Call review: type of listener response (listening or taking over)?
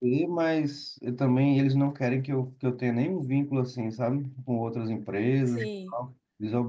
listening